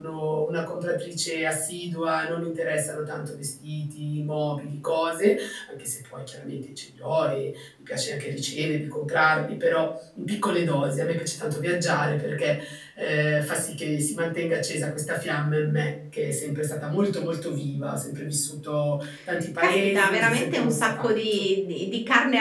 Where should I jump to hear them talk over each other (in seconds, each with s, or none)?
19.6 s